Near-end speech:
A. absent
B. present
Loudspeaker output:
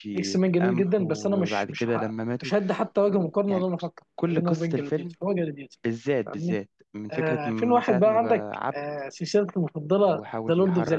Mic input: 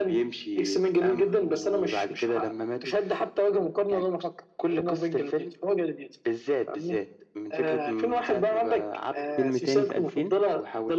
B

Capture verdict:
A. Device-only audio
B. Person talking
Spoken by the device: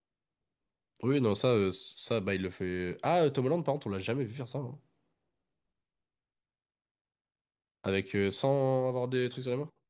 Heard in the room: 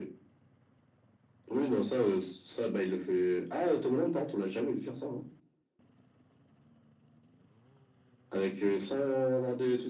A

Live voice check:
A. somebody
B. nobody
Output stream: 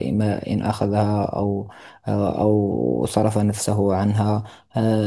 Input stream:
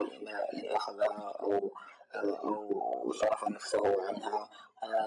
B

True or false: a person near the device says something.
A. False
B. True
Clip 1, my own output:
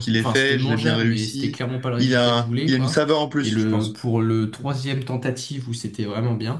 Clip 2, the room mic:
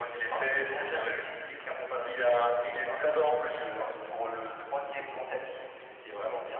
A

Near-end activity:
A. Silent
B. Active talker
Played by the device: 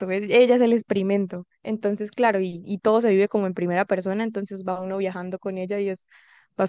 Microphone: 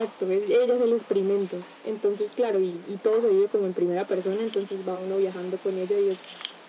A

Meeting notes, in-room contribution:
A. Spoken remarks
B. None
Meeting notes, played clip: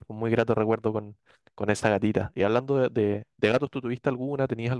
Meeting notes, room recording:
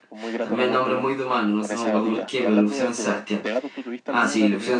A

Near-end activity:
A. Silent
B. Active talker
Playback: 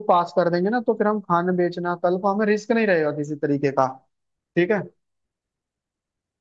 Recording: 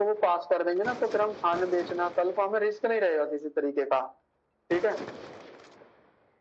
A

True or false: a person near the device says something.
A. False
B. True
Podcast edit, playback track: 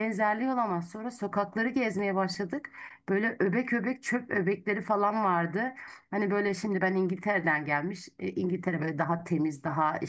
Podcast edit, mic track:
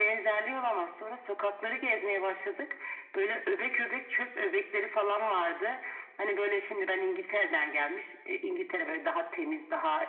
A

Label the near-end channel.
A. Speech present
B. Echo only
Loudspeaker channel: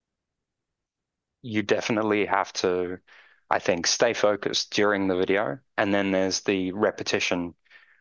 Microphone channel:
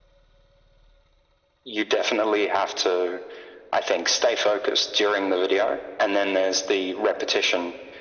B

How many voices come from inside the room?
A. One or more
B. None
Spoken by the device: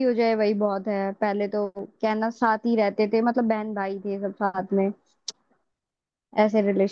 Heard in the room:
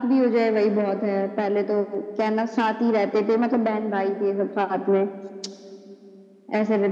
B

